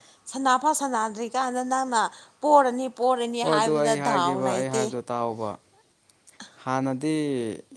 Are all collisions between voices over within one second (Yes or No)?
No